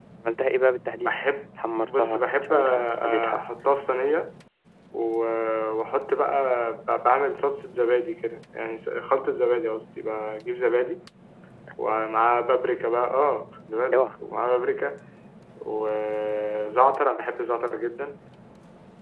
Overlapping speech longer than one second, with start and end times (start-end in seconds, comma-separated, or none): 1.8-3.4